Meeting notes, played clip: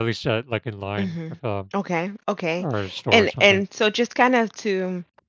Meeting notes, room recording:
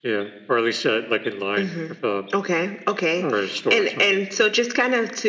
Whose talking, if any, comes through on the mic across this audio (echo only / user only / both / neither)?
echo only